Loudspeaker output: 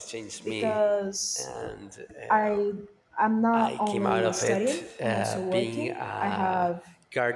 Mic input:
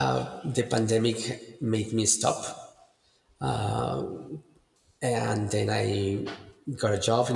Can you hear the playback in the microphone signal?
No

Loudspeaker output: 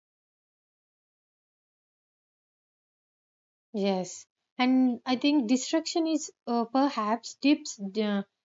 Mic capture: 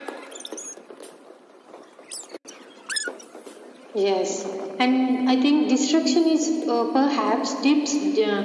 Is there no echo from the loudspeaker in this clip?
No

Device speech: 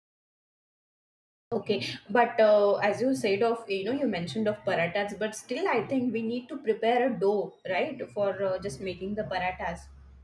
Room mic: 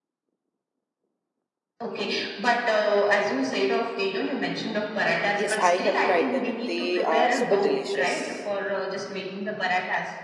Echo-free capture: No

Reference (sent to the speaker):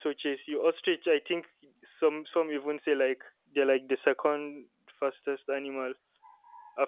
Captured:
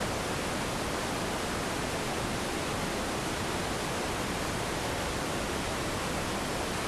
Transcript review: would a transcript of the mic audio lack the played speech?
Yes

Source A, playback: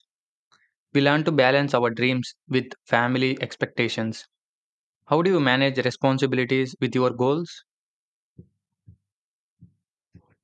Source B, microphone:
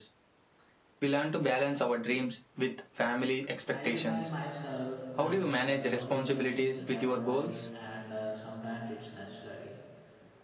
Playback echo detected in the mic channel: Yes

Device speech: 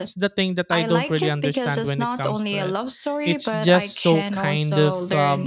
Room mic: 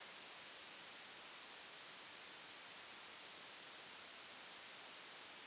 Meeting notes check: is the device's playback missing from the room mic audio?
Yes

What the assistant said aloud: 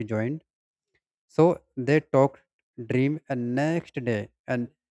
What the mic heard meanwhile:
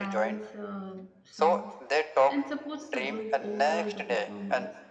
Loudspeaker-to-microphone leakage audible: Yes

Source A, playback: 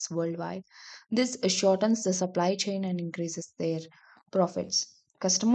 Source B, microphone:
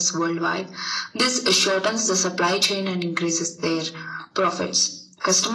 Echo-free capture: No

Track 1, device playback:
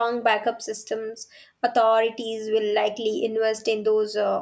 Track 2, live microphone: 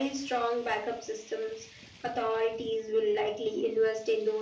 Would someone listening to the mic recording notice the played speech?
Yes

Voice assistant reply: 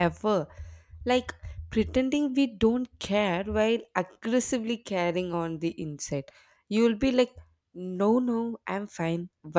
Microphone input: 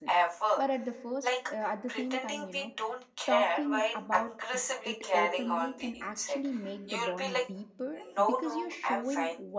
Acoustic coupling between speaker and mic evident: Yes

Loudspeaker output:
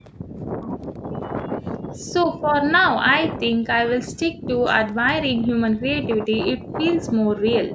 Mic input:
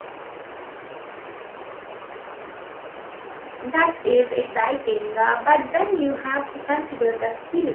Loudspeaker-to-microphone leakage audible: No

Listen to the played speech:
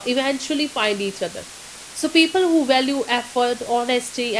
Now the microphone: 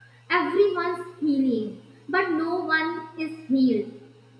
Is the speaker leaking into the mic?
No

